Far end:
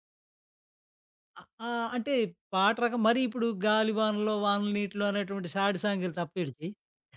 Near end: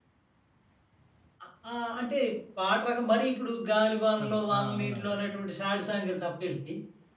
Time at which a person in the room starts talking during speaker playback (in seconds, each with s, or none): 4.2 s